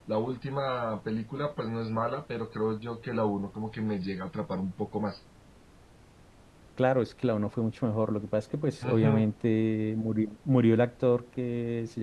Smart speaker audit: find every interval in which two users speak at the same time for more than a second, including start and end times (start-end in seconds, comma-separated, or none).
none